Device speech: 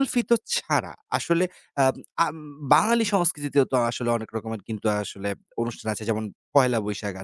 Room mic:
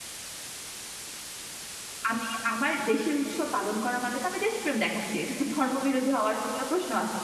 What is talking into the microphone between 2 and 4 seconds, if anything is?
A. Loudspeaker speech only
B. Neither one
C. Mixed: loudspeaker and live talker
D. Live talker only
D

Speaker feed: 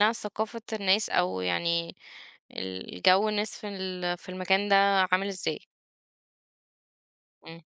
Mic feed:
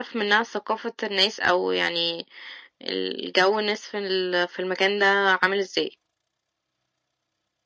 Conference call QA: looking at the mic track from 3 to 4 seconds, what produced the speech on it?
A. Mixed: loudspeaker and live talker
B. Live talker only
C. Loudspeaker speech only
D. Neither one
C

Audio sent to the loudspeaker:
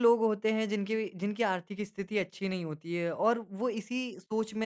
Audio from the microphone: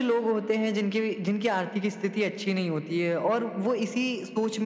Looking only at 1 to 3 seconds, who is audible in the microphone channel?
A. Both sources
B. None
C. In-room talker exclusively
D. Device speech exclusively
D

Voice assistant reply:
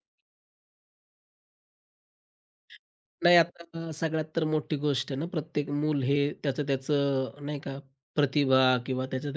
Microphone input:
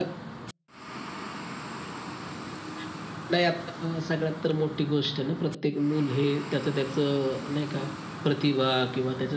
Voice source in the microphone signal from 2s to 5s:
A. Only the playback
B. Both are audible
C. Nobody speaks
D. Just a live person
A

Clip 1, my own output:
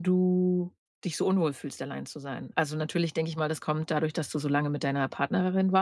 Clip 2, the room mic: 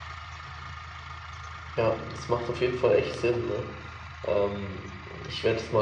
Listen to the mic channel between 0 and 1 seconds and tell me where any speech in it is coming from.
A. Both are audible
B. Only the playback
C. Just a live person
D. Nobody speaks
D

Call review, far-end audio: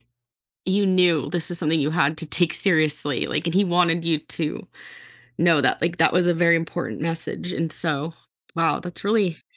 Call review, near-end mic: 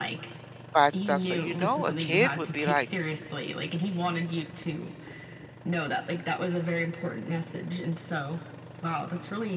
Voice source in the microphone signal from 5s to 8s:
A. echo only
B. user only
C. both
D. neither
A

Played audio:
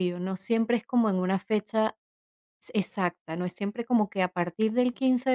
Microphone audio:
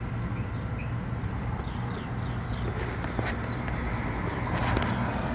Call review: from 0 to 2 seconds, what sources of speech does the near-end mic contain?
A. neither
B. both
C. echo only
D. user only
A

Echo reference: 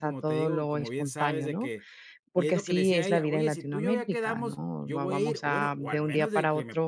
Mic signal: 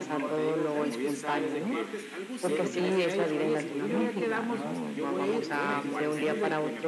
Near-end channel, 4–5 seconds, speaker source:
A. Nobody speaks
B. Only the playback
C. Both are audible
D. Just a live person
C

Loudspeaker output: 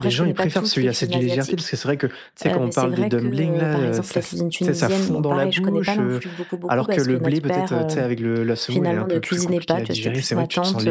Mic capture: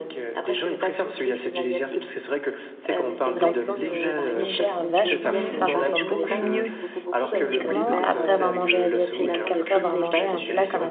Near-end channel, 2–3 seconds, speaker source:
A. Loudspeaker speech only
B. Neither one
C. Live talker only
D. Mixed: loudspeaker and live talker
A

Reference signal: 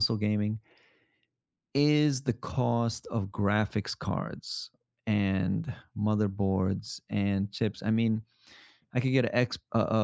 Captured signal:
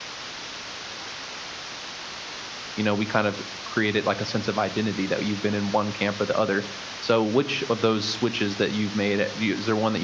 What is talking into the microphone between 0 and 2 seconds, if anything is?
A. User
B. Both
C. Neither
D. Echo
C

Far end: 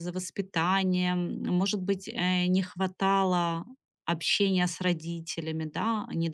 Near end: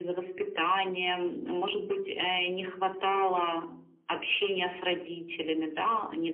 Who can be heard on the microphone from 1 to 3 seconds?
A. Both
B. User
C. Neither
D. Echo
D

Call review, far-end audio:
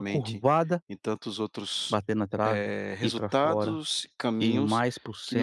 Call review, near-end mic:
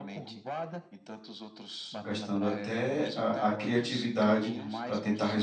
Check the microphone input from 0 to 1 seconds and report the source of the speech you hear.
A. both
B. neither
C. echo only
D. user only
C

